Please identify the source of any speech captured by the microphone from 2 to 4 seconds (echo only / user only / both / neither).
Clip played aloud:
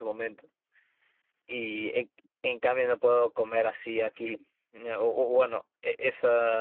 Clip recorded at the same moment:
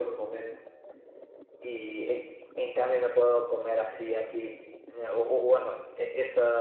echo only